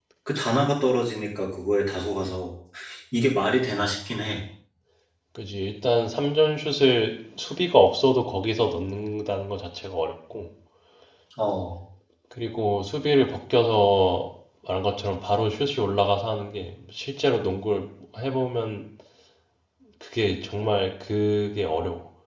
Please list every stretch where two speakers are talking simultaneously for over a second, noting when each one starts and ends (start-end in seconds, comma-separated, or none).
none